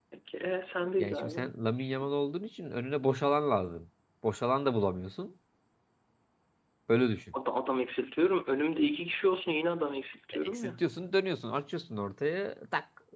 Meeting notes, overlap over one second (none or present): none